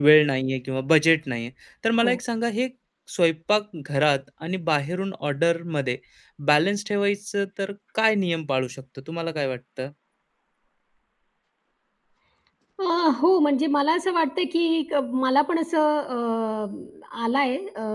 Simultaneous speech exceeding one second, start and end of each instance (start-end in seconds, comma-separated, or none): none